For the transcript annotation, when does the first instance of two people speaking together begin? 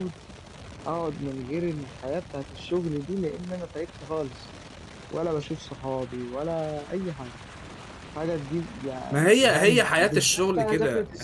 9.1 s

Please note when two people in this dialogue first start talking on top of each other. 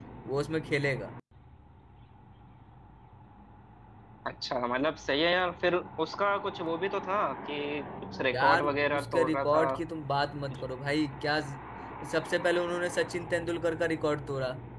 8.3 s

